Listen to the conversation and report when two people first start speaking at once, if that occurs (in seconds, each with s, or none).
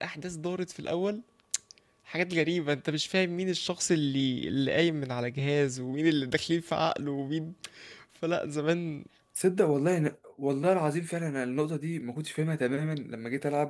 none